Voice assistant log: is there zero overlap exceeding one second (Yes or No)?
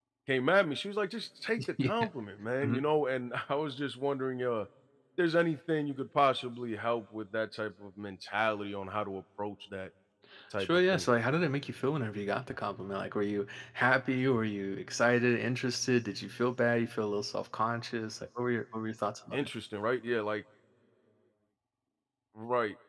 Yes